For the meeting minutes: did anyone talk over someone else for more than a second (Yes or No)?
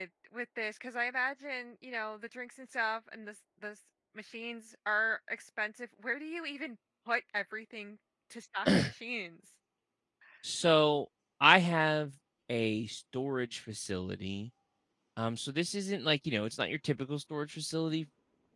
No